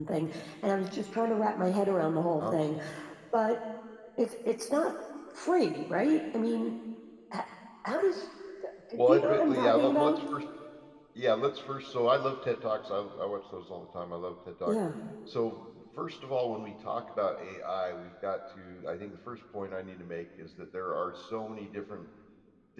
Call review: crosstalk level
present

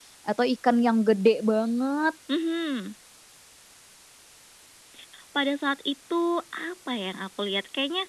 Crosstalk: none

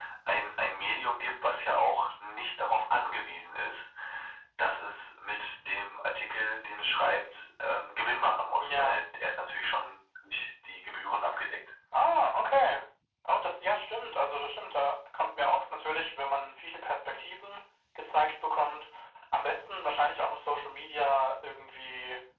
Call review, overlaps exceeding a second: none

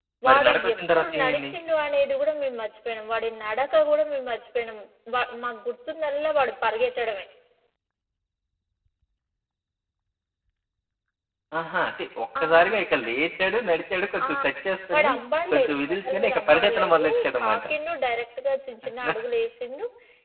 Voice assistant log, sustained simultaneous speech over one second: present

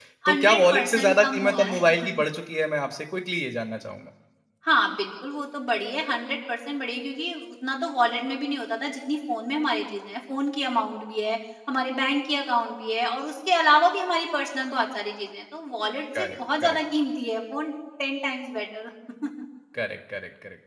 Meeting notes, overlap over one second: present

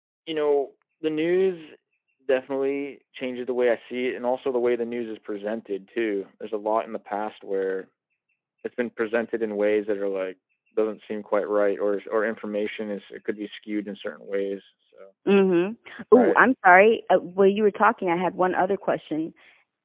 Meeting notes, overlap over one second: none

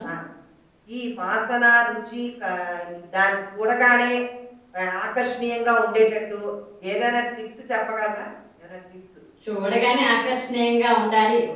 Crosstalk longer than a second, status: none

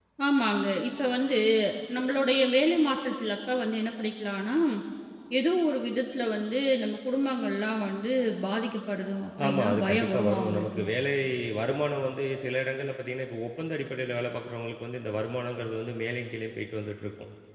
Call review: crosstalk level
present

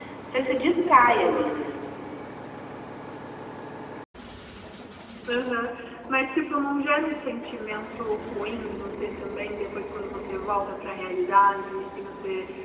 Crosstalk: none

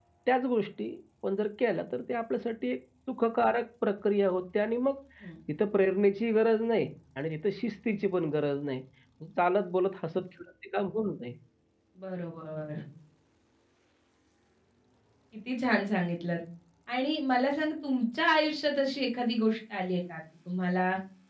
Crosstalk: none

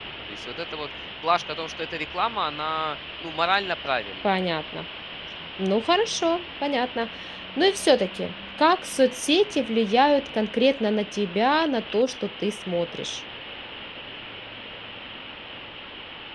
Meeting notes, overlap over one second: none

